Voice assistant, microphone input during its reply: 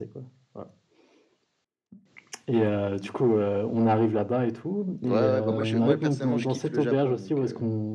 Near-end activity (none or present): present